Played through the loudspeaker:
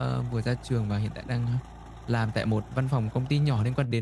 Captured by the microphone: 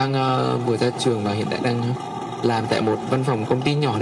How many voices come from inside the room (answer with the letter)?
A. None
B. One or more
A